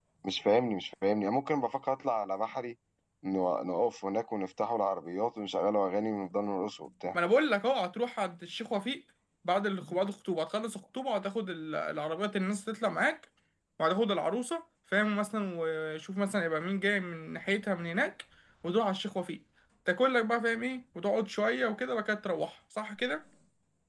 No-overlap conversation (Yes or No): Yes